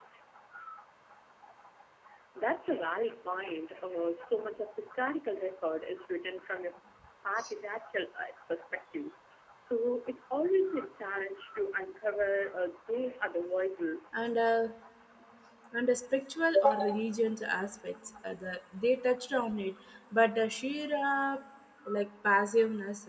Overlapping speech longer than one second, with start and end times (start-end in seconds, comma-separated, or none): none